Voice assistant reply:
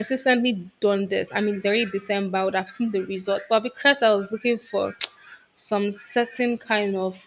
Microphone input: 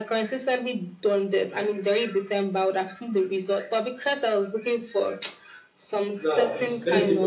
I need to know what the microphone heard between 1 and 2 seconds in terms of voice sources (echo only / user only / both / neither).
echo only